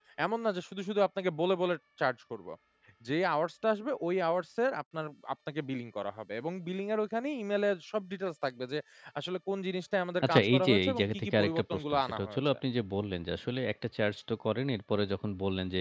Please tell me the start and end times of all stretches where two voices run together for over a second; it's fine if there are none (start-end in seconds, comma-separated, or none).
10.2-12.4